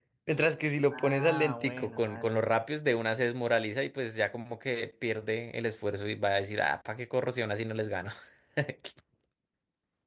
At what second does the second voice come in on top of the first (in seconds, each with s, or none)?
0.9 s